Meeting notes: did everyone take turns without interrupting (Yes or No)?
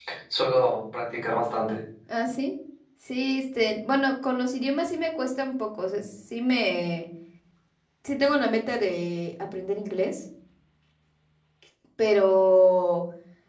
Yes